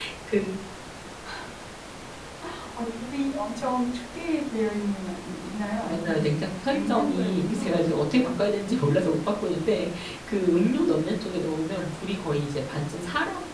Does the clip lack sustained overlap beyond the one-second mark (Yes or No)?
No